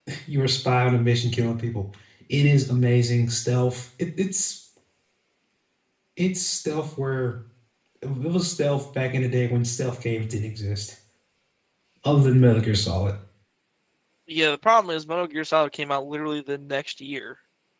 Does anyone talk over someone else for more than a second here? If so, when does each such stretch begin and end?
none

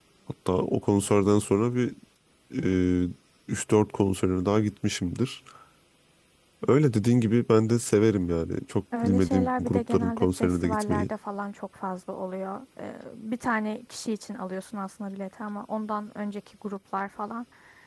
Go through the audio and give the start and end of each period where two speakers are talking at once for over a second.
9.0-11.1

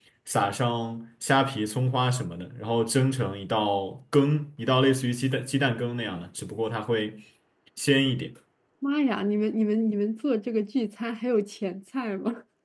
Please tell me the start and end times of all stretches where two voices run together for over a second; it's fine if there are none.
none

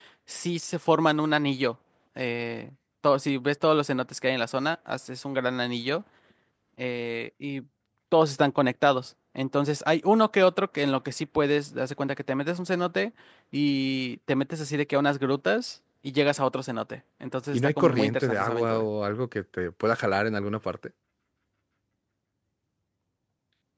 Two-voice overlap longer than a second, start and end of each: 17.5-18.9

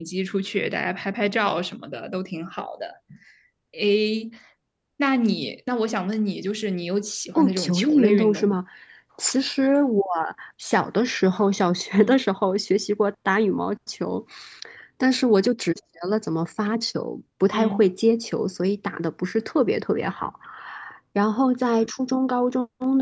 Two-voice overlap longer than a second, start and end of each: 7.3-8.6

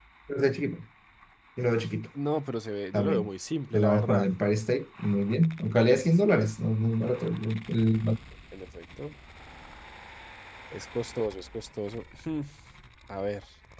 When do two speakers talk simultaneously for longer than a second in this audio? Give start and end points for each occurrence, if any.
none

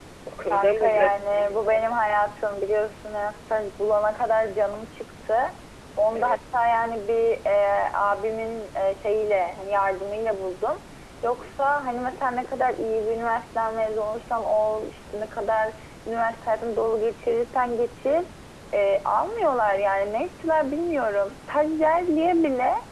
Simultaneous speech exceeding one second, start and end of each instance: 0.5-1.8

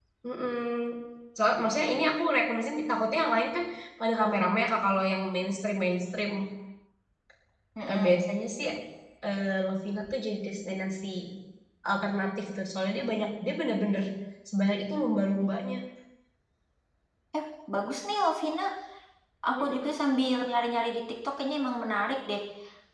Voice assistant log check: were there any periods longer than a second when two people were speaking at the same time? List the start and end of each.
none

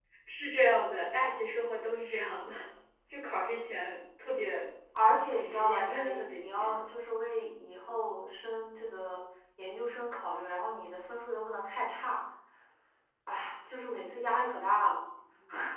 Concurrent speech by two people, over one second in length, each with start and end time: 5.3-6.7

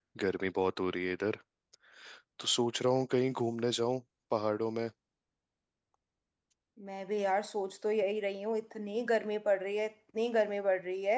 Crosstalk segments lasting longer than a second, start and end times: none

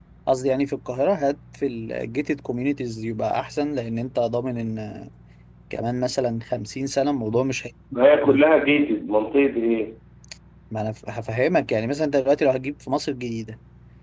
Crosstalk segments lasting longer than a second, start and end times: none

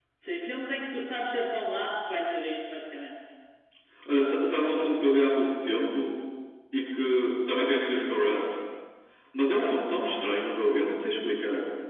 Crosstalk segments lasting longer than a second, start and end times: none

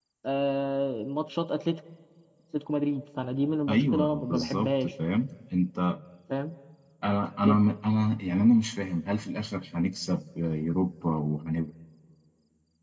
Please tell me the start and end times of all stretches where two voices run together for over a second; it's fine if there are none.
3.7-4.9

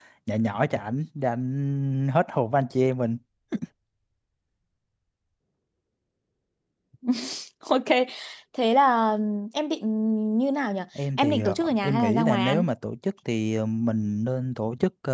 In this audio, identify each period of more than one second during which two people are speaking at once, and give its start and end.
11.2-12.6

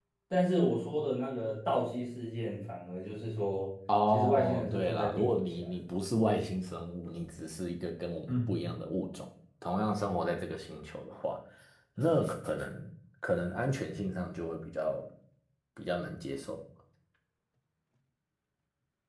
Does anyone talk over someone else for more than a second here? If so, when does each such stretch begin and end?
4.1-5.6

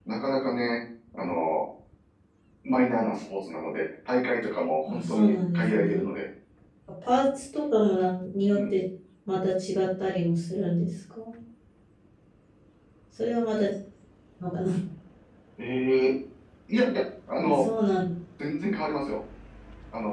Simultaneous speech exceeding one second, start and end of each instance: 4.9-6.1

